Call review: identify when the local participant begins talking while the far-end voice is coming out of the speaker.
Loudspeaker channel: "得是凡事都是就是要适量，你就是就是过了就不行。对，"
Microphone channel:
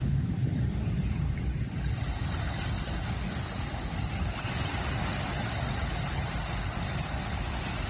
none

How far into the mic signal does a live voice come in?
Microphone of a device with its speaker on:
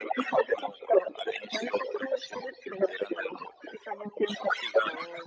none

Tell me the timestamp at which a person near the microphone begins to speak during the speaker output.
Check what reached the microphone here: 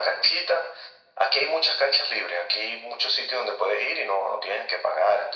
none

